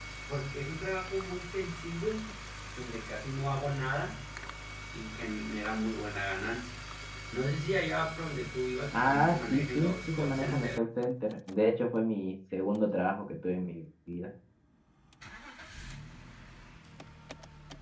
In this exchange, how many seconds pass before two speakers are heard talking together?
8.9 s

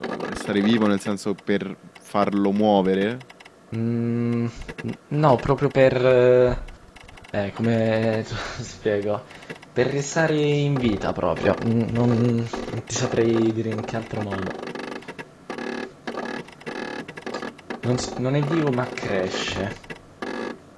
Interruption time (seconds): none

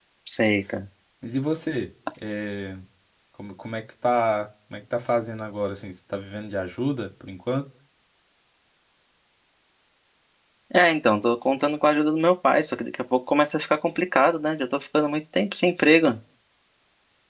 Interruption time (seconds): none

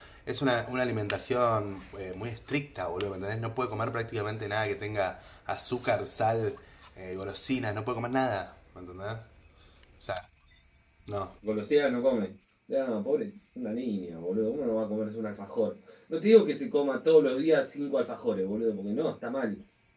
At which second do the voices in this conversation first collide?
none

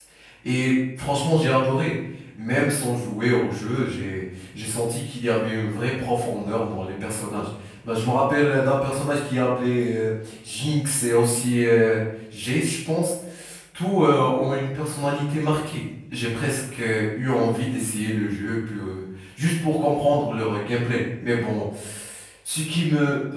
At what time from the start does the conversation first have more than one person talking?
none

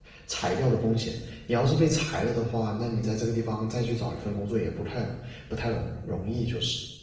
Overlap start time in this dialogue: none

